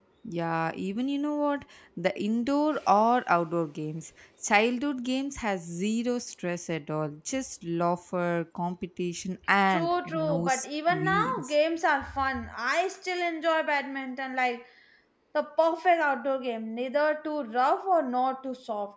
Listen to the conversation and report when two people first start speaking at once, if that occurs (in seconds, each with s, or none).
9.7 s